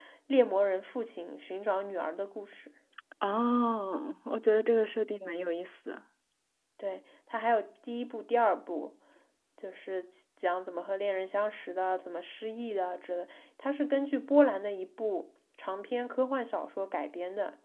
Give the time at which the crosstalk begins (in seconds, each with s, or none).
none